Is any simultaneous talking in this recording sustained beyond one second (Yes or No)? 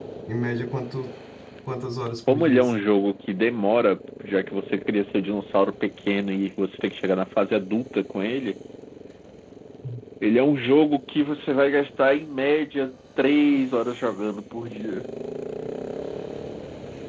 No